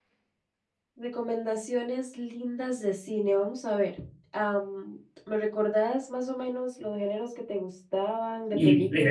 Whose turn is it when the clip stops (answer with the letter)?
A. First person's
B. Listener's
B